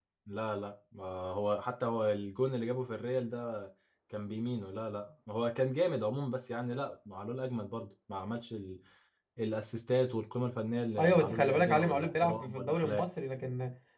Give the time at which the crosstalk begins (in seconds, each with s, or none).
11.0 s